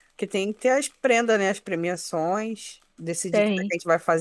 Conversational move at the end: listening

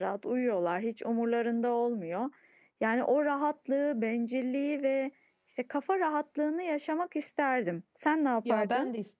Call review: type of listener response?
taking over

